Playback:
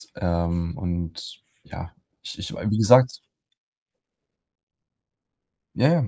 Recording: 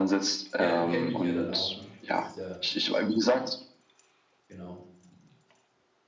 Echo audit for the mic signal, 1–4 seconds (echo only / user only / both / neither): both